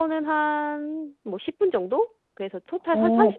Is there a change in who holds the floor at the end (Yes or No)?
Yes